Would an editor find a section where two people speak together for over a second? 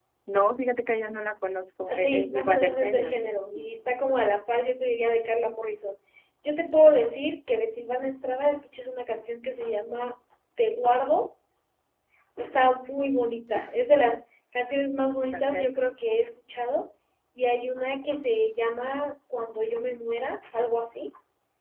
Yes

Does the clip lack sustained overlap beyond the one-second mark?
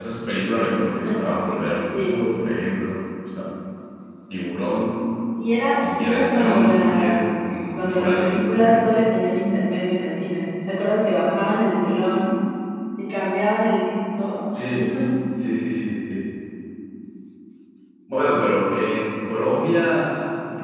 No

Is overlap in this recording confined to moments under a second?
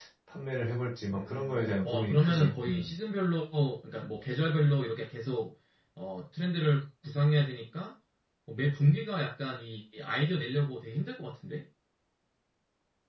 No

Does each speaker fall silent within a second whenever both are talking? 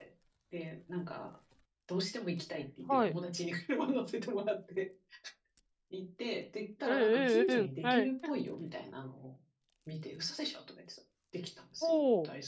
No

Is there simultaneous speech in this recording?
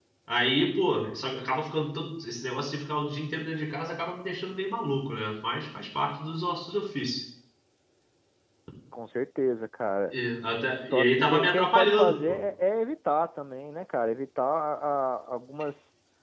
Yes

